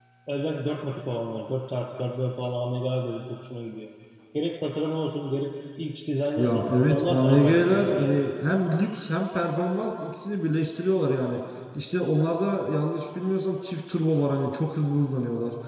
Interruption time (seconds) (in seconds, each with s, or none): 6.4 s